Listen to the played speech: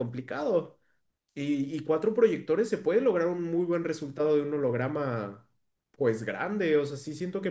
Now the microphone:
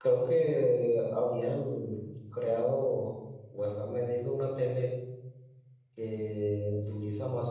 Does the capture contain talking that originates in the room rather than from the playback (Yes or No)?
Yes